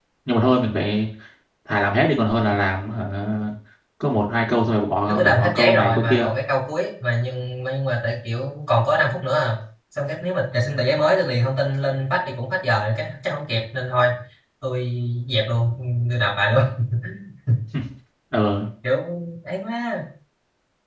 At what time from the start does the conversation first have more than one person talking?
5.1 s

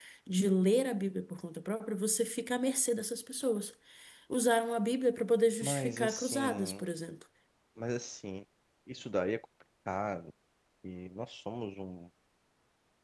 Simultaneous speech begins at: 5.6 s

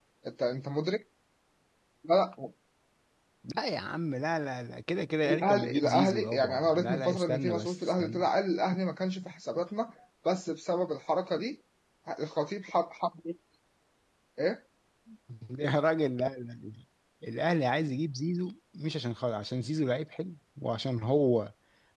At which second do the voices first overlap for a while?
5.2 s

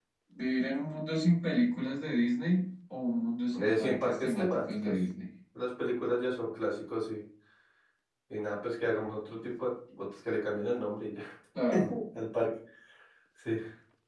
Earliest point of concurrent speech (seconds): 3.6 s

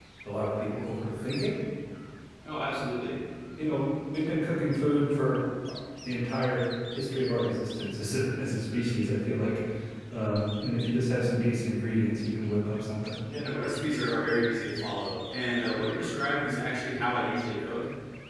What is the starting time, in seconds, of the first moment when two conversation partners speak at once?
none

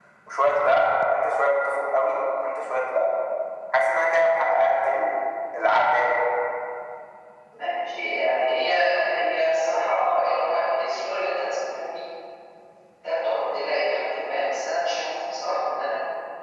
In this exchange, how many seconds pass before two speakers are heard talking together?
none

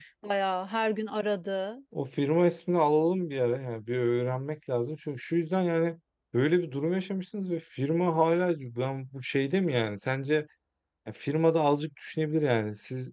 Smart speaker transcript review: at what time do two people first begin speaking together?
none

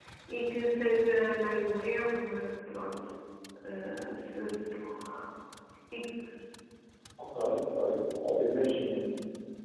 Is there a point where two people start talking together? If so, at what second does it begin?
none

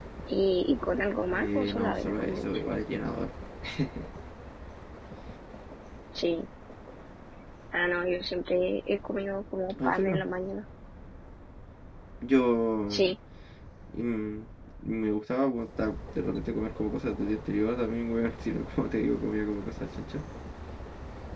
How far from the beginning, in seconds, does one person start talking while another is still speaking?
1.3 s

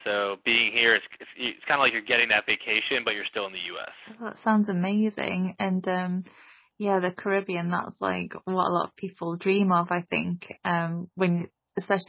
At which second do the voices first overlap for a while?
none

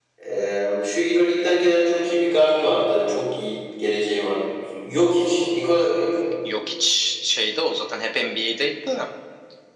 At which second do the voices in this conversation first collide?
none

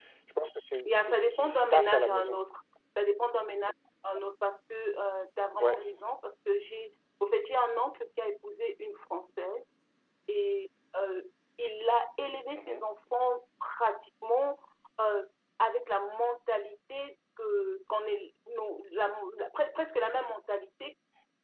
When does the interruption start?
0.8 s

